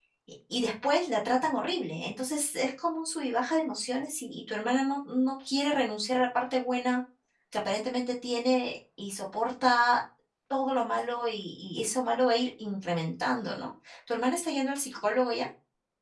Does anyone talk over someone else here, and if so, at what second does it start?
none

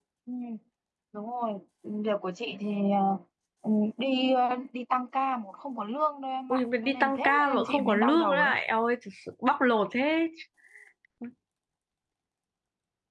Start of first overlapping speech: 6.5 s

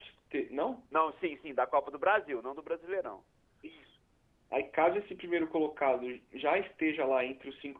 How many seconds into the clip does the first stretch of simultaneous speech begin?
none

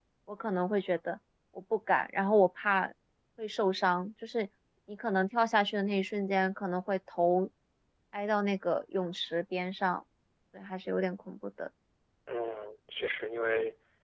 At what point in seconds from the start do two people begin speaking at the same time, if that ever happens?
none

